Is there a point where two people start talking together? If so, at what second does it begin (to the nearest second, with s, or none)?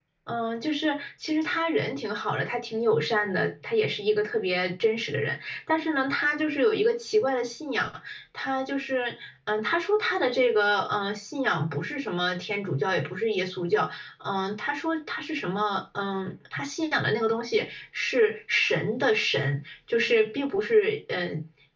none